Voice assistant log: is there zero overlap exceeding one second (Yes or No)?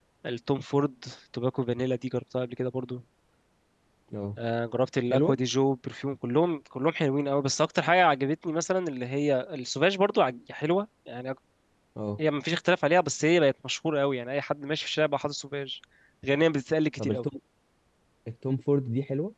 Yes